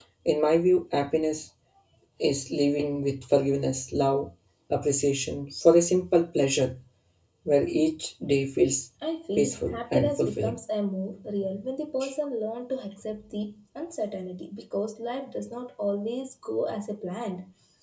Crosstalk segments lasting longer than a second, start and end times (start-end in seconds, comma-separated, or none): 9.4-10.6